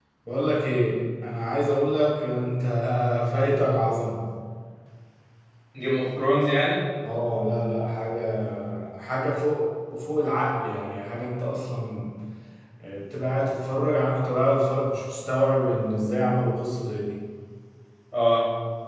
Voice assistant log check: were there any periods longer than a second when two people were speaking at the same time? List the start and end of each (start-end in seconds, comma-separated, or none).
none